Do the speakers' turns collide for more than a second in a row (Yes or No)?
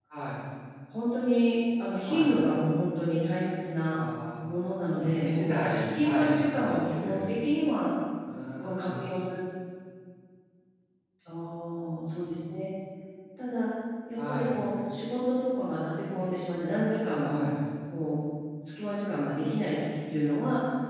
Yes